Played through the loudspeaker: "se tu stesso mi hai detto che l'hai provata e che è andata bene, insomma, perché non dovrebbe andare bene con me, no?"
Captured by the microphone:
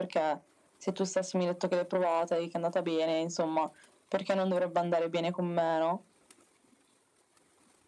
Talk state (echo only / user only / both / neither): echo only